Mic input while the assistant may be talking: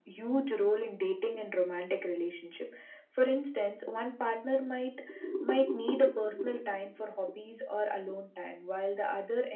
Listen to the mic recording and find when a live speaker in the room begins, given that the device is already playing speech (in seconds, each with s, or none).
none